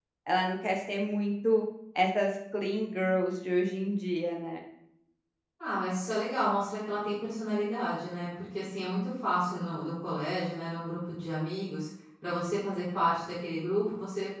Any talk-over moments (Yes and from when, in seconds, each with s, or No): No